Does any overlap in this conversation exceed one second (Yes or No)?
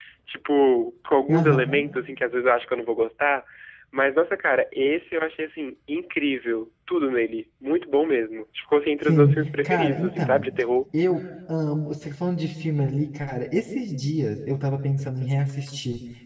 Yes